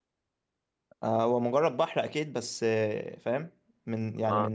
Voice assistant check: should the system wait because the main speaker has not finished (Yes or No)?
Yes